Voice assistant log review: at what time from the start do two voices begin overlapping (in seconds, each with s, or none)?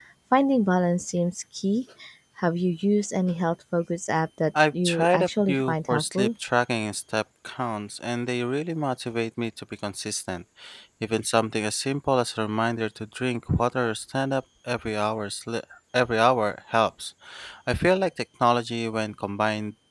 4.8 s